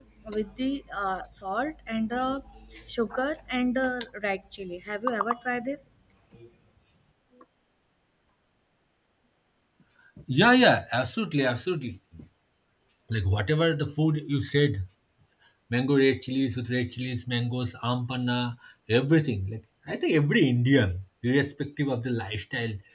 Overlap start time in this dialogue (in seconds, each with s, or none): none